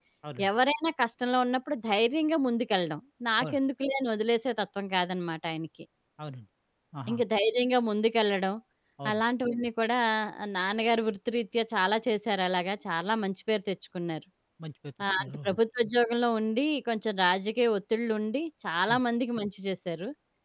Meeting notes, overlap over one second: none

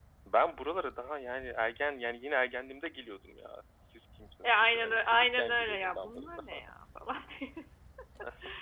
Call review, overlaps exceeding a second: present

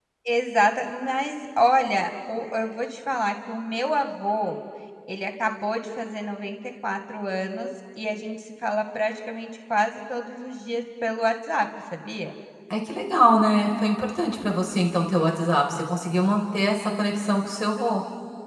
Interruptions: none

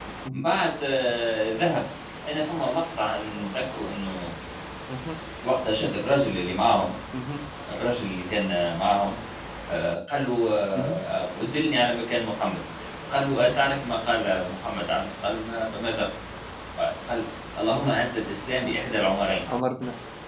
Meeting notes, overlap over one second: none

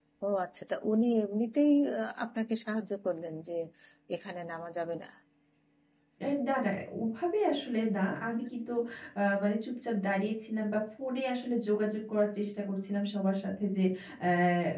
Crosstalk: none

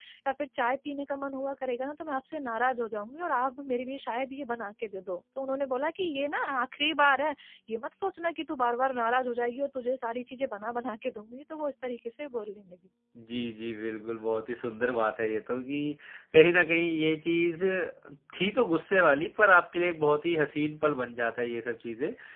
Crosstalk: none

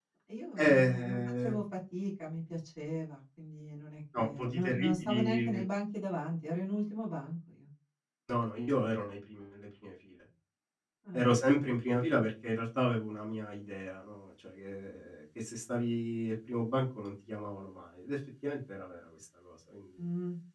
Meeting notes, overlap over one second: present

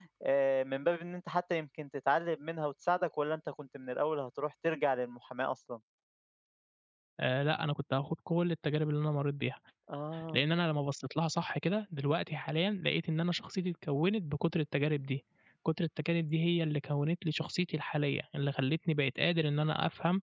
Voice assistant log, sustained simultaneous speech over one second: none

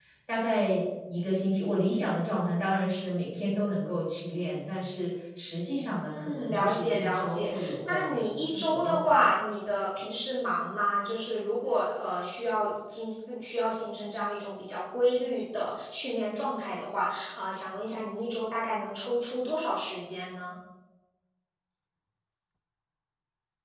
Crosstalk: present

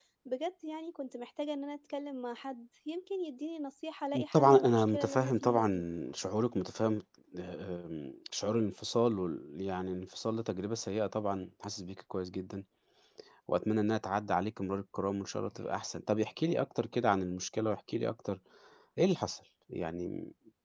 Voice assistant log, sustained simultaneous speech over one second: present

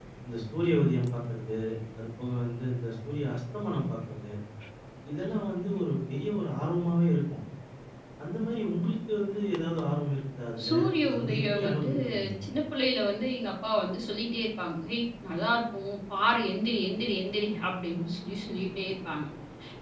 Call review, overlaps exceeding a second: present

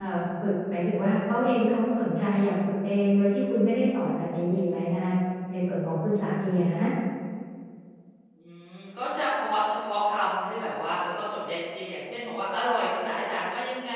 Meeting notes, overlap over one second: none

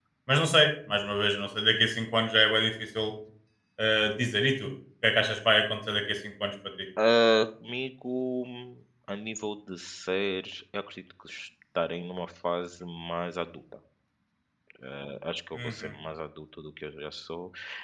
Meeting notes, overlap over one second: none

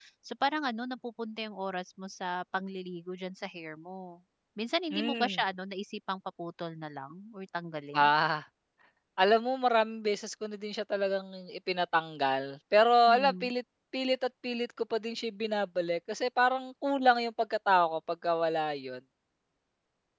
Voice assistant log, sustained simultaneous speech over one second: none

